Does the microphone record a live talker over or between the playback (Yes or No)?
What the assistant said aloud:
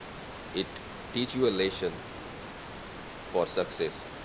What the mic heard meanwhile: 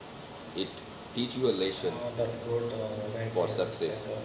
Yes